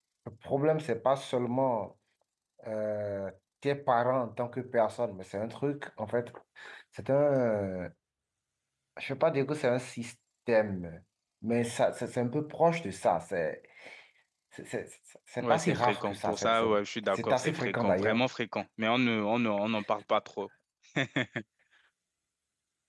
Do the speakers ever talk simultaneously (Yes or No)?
Yes